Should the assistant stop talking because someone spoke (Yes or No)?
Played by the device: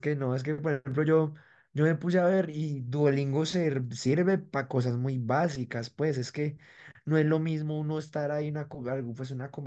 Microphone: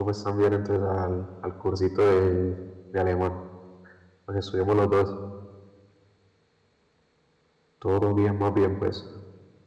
Yes